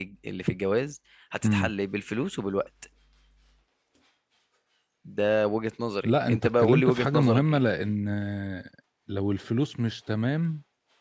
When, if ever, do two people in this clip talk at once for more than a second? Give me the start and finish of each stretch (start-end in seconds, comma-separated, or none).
6.0-7.6